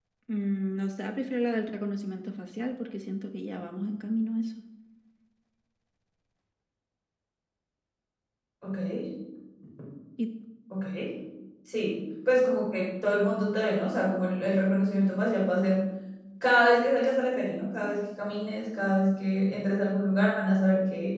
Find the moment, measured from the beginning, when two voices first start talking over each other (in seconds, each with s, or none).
none